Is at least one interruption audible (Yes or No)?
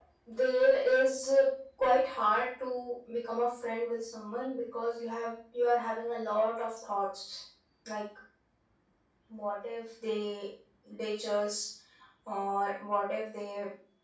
No